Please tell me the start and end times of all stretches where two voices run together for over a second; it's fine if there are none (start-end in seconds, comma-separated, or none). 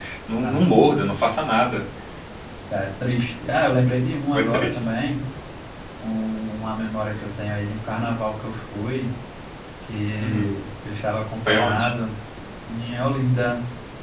none